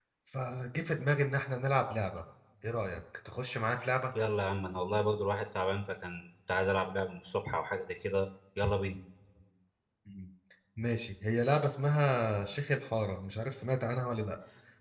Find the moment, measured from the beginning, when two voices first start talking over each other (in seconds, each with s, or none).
none